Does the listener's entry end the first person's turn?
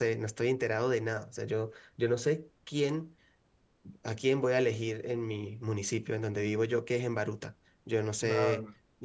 No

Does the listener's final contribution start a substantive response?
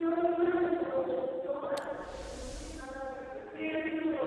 Yes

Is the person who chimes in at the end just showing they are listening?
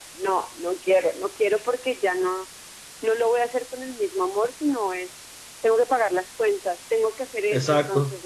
Yes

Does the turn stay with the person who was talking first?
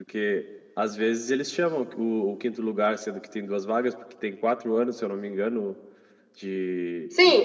No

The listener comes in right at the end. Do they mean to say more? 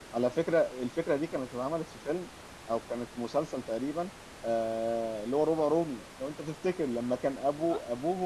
No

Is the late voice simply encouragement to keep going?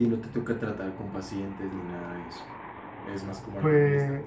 No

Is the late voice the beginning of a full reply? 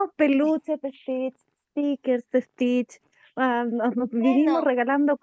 No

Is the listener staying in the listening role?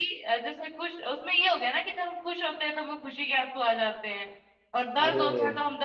Yes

